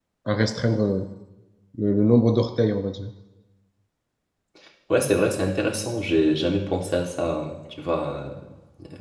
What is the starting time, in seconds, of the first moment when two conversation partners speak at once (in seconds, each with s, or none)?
none